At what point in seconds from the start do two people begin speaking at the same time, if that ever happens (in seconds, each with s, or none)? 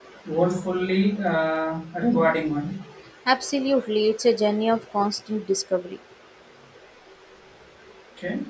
none